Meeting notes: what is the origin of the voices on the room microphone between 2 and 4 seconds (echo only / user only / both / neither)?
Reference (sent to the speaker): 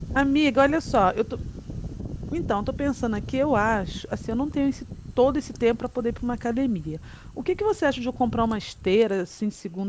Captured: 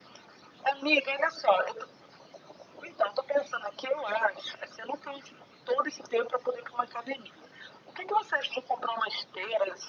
echo only